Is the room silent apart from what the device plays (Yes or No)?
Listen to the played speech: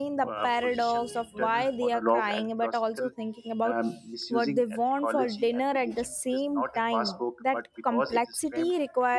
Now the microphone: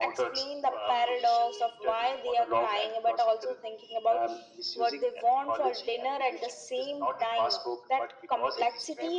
Yes